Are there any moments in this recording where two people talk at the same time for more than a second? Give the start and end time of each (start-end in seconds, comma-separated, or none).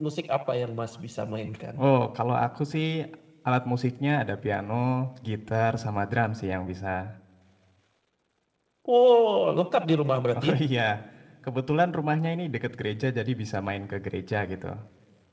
none